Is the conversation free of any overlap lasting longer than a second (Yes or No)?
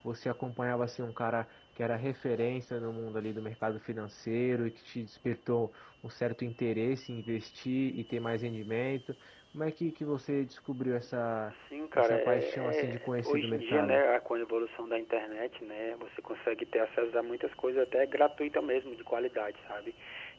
No